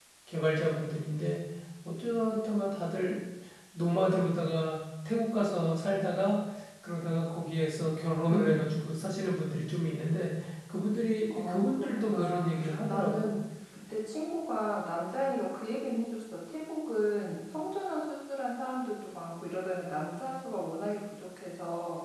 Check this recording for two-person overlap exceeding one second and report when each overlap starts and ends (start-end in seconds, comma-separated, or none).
11.4-13.2